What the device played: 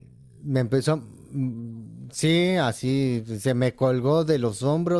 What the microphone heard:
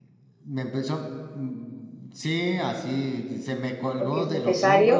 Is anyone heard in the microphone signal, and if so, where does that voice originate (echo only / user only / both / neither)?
both